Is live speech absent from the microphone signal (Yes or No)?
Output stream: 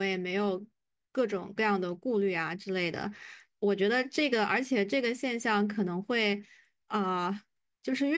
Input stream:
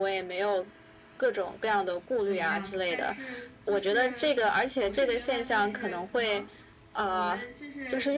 No